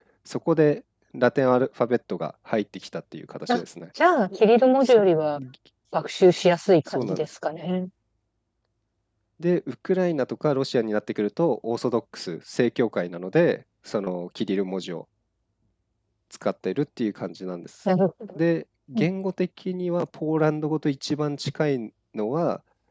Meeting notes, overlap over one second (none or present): none